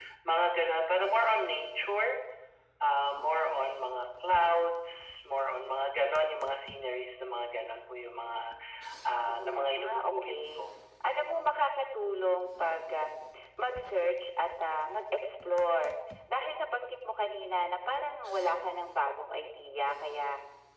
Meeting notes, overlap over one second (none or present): present